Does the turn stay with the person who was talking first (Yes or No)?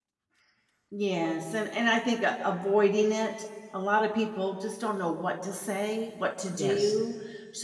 Yes